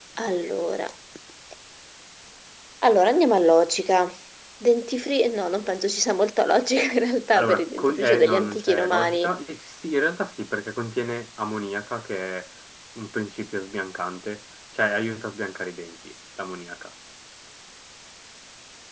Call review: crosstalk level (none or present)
present